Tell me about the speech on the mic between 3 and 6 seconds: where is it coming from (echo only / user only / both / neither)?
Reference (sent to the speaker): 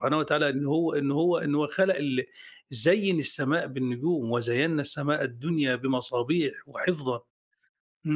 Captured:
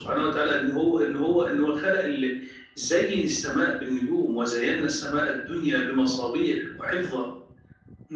echo only